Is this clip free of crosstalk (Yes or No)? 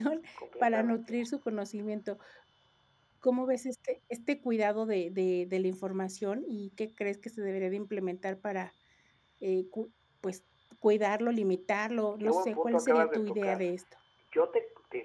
No